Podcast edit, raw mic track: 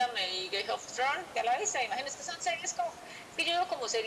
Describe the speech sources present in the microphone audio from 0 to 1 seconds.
echo only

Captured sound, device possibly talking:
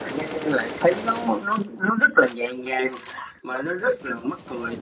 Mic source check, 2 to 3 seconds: echo only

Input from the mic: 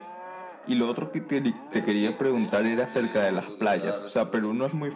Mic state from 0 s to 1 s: echo only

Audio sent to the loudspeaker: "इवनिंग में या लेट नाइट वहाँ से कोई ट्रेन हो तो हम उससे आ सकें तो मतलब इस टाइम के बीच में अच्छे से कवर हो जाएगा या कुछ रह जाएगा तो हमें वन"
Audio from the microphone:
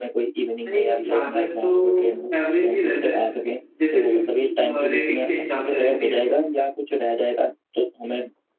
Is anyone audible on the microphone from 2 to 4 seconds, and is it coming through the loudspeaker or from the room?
both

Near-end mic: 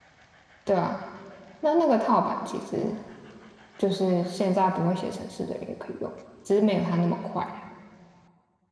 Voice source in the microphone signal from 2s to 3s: user only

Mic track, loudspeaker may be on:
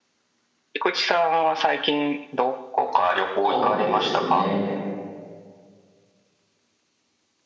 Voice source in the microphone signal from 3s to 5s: both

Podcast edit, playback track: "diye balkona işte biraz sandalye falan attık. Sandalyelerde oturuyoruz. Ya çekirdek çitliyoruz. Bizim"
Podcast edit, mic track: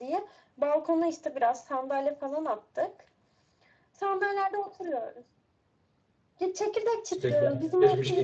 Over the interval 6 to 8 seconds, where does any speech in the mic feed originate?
both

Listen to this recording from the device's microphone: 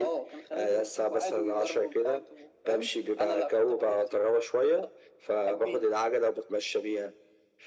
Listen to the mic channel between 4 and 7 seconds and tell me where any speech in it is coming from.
echo only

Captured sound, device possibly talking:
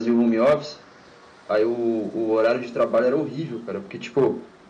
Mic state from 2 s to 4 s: echo only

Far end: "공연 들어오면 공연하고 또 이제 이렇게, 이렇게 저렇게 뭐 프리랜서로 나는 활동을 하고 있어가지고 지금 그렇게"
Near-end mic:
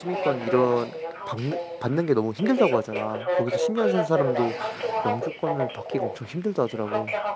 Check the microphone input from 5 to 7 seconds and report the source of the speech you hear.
both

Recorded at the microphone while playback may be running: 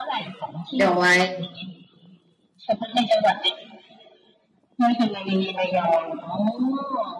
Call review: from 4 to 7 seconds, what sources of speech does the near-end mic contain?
echo only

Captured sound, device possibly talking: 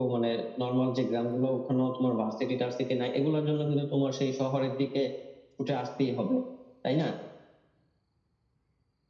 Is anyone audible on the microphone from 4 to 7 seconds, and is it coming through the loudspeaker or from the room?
echo only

